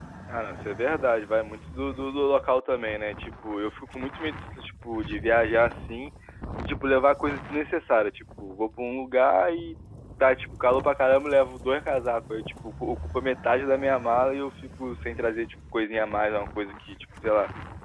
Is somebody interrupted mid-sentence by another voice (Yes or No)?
No